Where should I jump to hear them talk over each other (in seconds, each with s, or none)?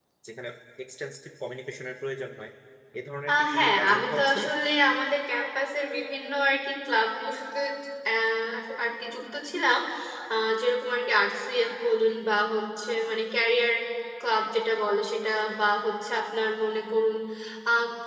3.3 s